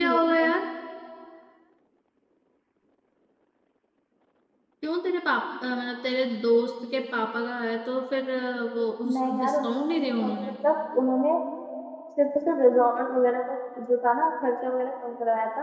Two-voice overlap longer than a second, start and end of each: 9.1-10.5

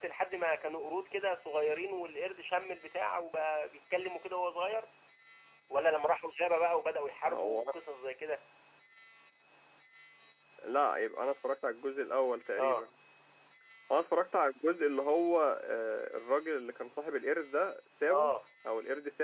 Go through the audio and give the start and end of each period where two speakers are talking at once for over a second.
none

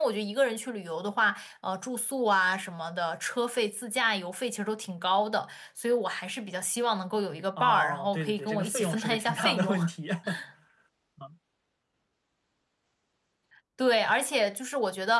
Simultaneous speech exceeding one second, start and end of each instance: 7.6-9.8

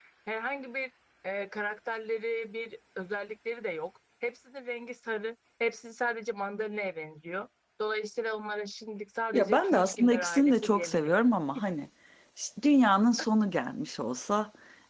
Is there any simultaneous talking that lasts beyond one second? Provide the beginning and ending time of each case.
9.3-11.1

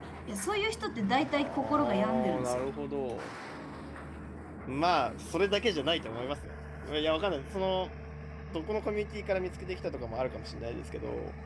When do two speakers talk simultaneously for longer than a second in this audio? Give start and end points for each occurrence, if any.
1.3-2.7

